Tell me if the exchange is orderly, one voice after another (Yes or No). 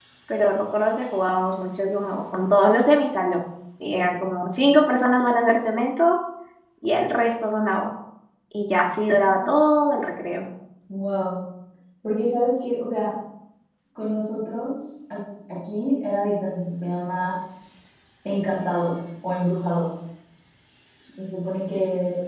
Yes